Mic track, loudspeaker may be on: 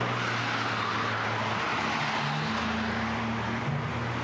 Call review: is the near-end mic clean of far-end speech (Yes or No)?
Yes